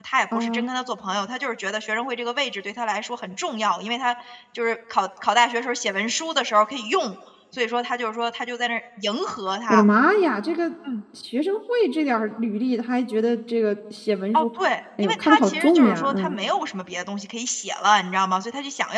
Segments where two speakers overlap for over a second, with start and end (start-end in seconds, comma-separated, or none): 15.0-16.4